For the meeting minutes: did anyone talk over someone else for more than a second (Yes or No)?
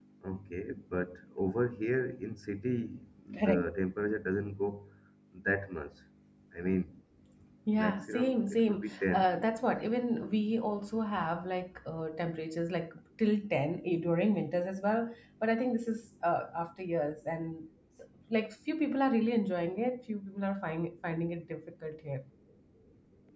Yes